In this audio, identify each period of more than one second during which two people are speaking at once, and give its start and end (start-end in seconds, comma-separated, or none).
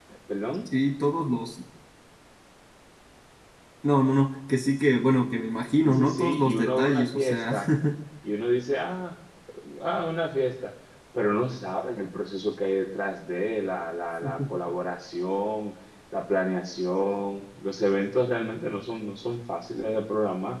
5.8-7.5